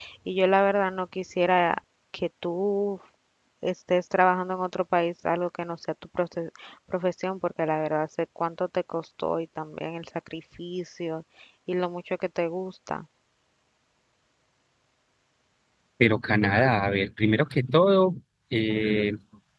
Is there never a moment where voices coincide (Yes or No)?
Yes